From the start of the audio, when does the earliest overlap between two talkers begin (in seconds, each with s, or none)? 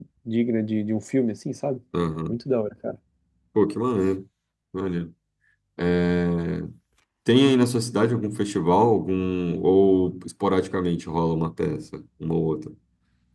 none